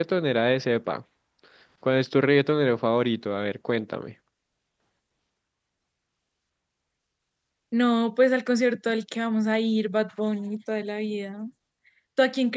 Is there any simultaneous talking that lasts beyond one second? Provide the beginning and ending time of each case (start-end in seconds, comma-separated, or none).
none